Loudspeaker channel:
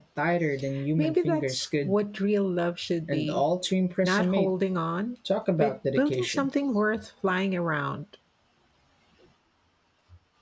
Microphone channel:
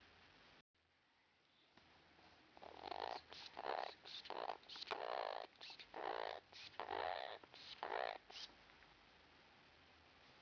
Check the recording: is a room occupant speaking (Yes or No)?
No